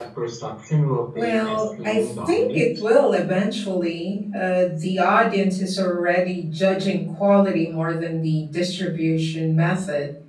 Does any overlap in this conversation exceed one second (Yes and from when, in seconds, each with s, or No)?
Yes, from 1.1 s